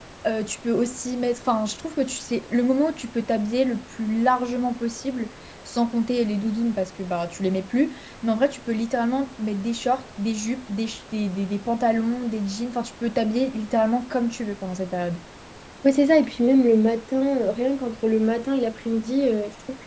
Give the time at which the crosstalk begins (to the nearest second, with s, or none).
none